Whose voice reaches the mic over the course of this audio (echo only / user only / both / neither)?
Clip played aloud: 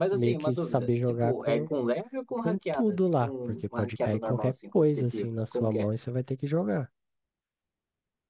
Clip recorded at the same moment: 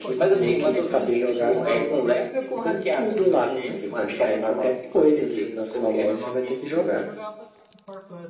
both